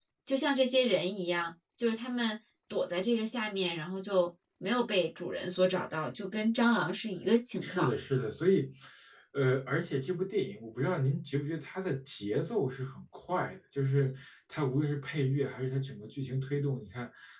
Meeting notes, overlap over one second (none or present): none